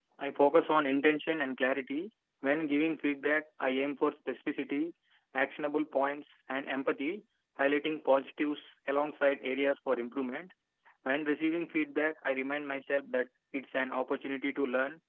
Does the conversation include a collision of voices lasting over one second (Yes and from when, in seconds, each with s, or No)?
No